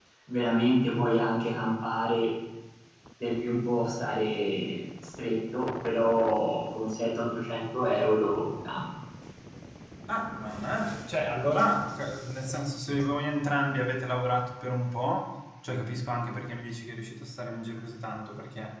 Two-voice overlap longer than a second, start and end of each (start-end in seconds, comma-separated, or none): none